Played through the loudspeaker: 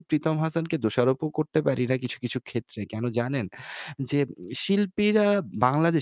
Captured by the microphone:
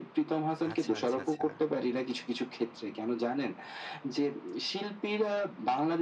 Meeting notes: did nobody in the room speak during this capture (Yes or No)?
No